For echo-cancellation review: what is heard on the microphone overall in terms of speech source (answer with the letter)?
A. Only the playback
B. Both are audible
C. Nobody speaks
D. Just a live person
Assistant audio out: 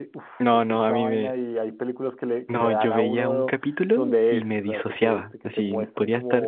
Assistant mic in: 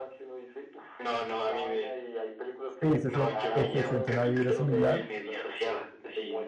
B